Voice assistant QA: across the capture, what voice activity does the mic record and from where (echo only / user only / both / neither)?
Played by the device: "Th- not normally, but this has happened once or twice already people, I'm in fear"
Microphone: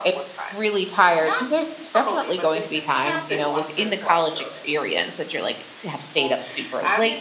both